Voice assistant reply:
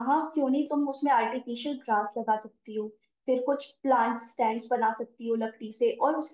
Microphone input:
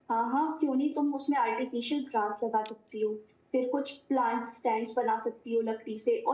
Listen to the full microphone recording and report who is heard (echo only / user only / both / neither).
echo only